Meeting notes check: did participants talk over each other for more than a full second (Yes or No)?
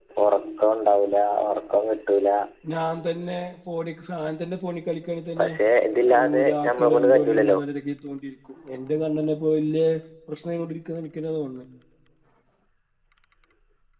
Yes